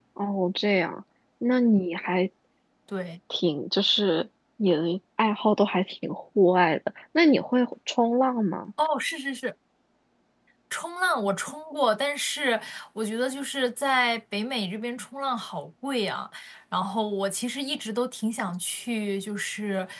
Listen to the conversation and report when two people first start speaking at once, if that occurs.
none

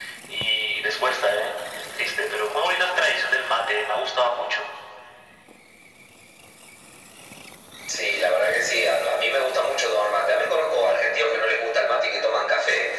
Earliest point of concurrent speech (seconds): none

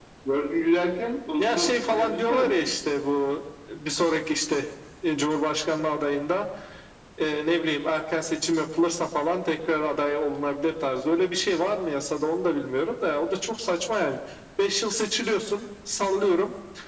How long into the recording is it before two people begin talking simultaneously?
1 s

